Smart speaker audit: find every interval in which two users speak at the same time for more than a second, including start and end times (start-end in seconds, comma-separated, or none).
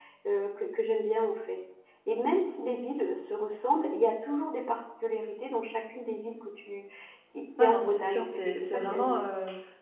7.6-9.2